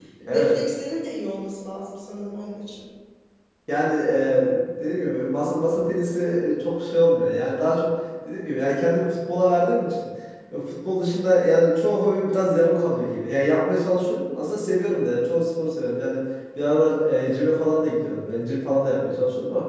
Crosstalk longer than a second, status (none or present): none